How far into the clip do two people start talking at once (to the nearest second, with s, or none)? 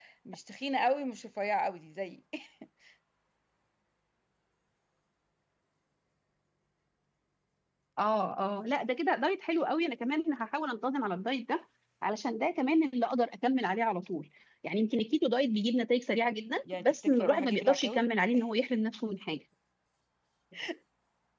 17 s